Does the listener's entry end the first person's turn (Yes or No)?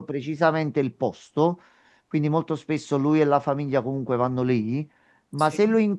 No